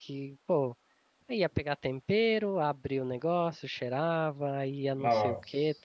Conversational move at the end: listening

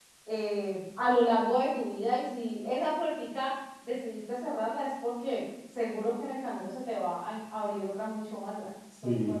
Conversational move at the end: taking over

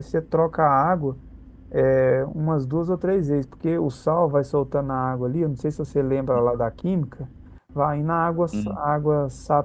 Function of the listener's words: listening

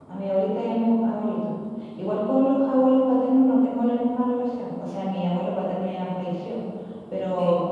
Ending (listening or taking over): listening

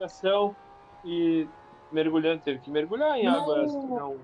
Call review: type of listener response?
listening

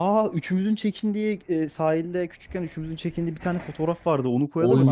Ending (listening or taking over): listening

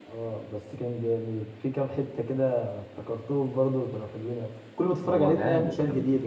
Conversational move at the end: taking over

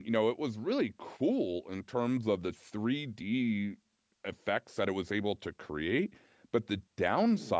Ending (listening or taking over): listening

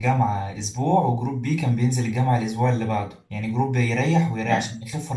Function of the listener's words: listening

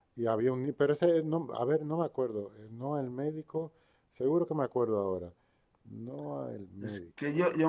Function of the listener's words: taking over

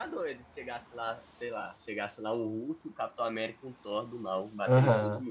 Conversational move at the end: taking over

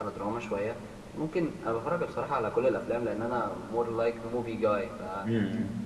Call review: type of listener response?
listening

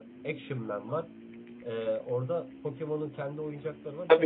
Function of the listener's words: taking over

